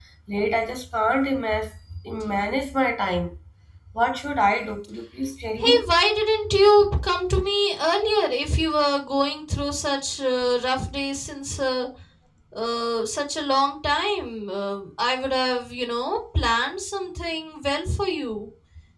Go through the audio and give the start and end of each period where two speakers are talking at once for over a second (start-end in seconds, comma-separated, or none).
none